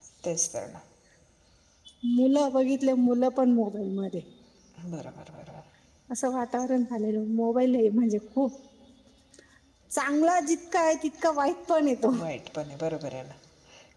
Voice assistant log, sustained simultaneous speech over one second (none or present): none